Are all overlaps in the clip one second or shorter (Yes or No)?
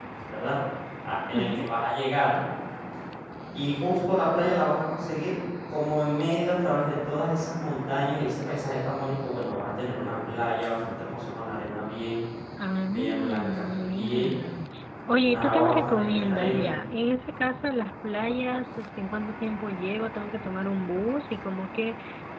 No